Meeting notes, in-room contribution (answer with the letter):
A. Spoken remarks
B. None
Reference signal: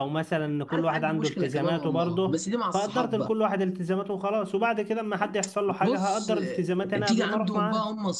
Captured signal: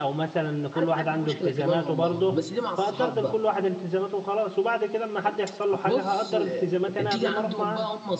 B